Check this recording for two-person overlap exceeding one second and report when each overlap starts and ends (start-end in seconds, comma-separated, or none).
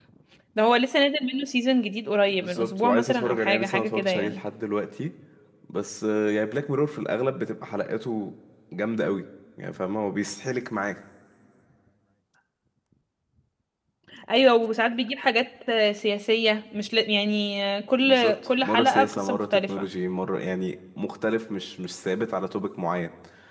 2.3-4.4, 18.0-19.9